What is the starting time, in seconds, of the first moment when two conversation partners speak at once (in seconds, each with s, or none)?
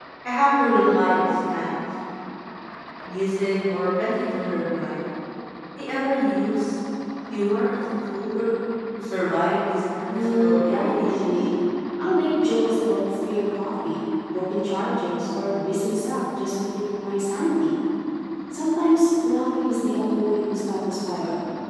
10.1 s